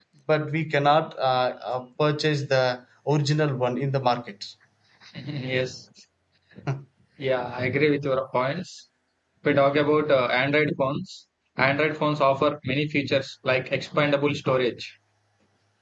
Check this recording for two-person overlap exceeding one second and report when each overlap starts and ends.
none

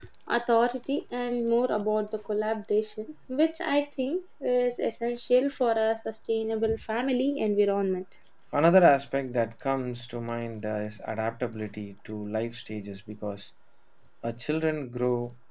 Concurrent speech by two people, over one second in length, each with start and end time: none

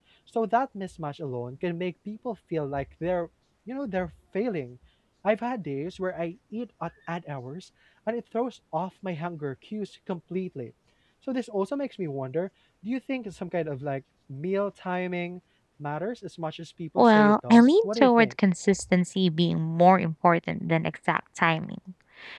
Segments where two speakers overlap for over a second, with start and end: 17.0-18.3

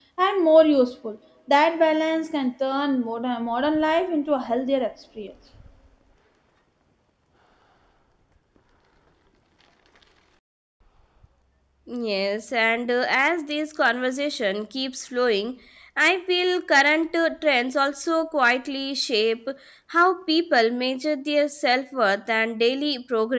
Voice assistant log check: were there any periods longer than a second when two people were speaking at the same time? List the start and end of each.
none

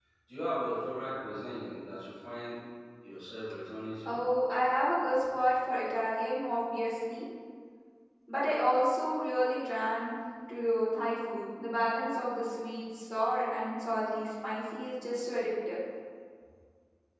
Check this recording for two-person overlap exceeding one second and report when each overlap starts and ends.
none

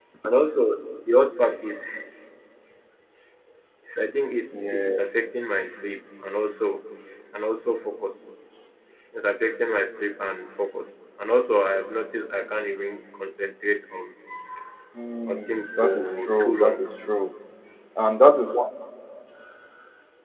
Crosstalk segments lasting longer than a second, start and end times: 15.3-16.8

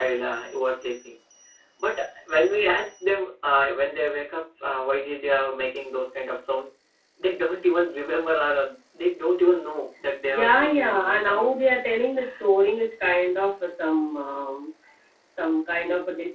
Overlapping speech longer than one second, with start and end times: 10.3-11.6

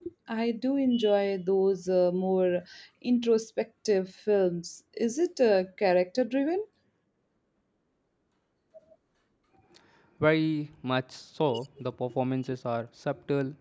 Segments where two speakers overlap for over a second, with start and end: none

